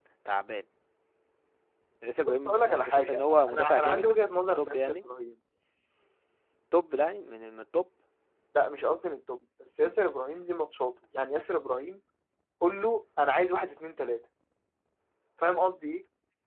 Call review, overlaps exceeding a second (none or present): present